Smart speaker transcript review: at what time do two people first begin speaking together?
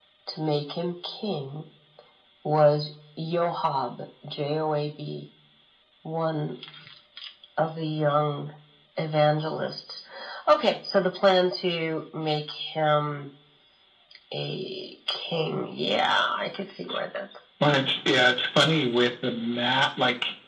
none

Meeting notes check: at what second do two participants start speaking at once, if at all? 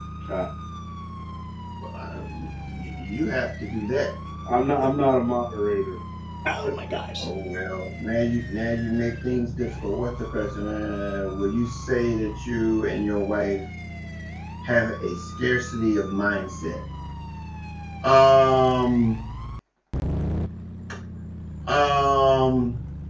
none

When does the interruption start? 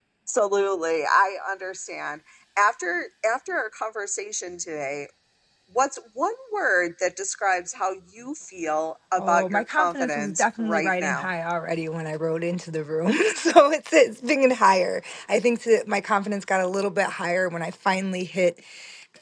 9 s

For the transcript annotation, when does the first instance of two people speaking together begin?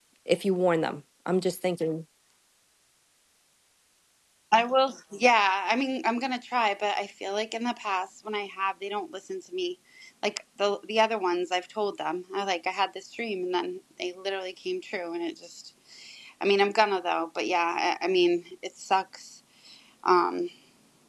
none

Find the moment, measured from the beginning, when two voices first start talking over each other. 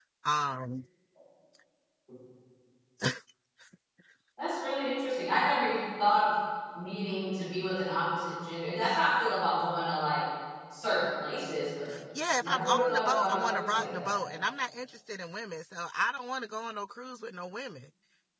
12 s

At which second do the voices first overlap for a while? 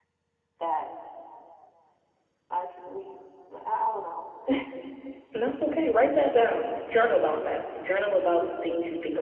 none

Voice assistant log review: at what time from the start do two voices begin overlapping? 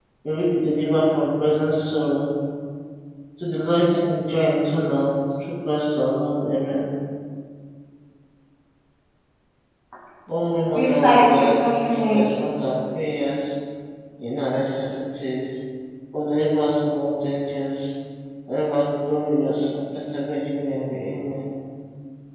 11 s

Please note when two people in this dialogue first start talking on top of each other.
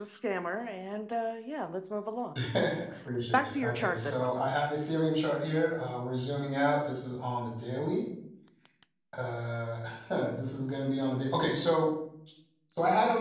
3 s

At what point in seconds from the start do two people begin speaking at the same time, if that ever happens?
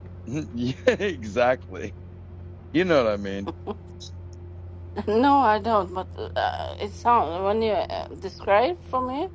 none

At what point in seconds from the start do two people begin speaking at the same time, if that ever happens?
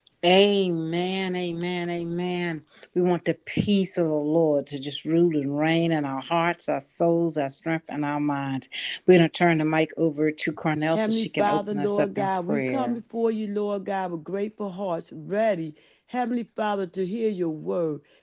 11 s

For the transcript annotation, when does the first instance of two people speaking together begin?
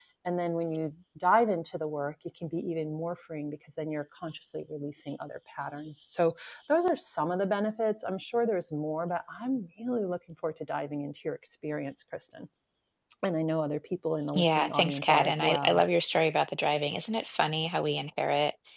14 s

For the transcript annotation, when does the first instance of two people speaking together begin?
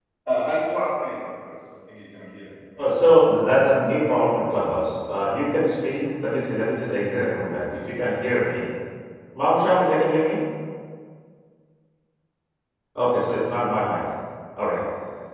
none

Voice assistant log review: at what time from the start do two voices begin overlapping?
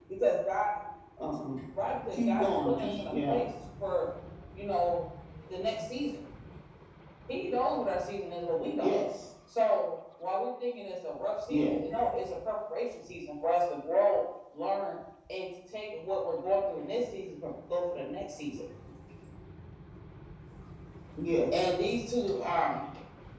2 s

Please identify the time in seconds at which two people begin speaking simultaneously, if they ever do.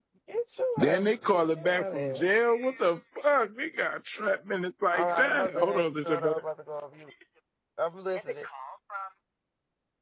1 s

